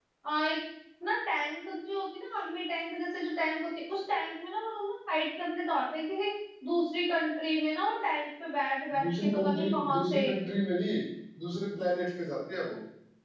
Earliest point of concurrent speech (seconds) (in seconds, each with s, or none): 8.9 s